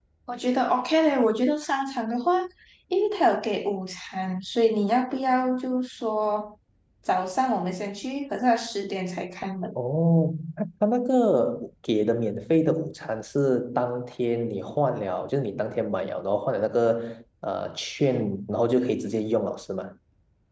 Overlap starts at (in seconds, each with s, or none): none